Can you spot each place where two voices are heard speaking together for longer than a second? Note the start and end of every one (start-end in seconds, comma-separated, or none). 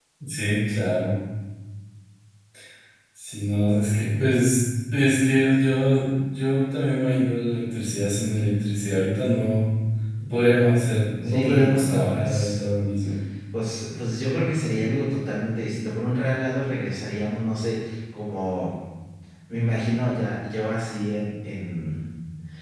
11.2-12.6